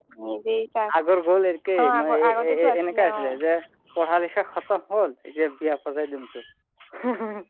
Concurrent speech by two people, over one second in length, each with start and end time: 1.8-3.2

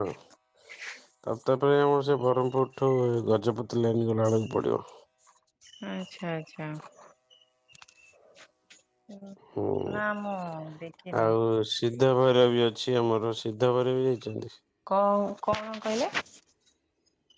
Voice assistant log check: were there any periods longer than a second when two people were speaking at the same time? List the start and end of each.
none

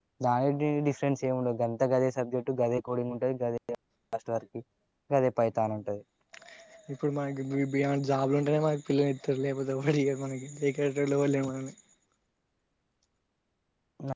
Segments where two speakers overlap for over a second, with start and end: none

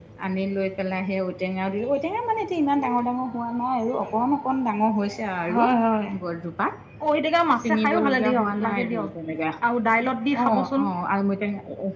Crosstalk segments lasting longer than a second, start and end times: 7.6-9.1

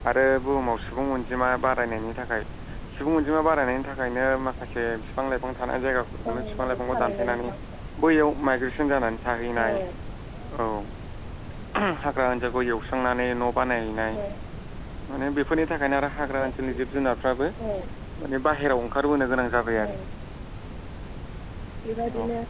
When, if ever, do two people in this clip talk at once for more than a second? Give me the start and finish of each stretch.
6.2-7.5

